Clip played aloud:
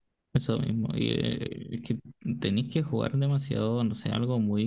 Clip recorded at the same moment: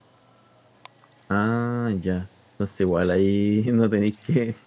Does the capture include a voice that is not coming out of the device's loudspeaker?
Yes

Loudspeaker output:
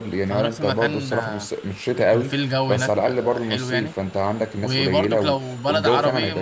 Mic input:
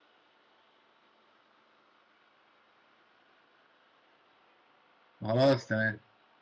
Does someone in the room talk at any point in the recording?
Yes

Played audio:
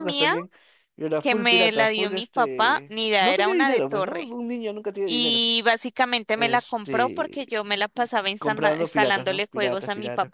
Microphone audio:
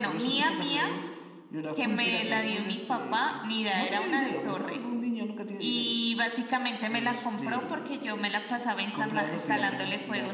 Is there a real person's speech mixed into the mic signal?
No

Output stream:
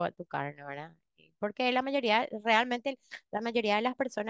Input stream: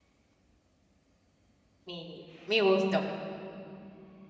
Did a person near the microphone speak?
Yes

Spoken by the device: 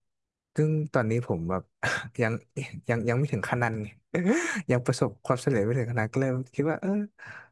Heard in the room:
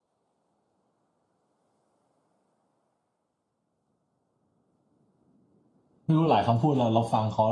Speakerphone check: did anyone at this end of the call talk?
Yes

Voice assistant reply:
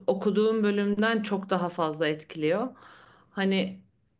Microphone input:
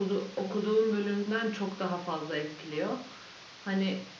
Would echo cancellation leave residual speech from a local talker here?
No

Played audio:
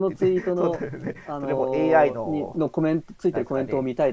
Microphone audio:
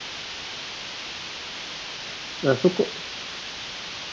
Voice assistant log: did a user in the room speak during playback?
Yes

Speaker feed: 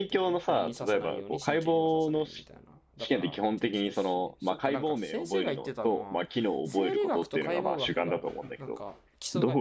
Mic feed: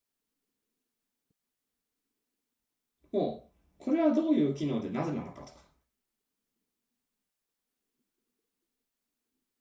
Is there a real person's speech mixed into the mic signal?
Yes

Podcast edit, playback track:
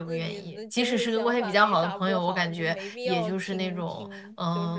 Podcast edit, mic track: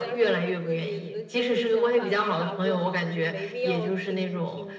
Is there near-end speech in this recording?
No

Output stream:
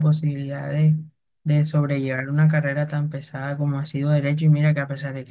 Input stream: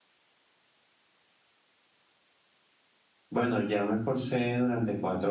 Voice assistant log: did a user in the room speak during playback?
Yes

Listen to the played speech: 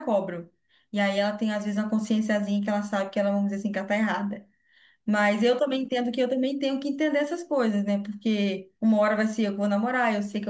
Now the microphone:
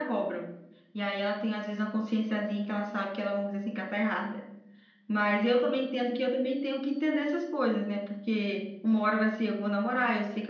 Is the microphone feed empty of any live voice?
Yes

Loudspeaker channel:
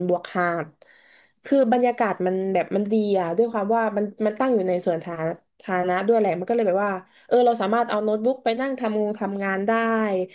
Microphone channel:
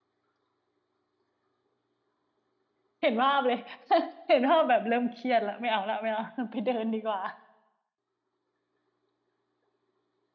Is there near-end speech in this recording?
Yes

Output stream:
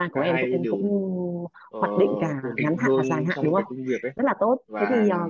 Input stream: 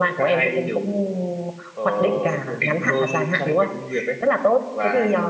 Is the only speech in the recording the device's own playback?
Yes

